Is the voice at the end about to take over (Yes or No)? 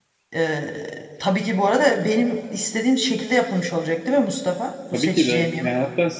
Yes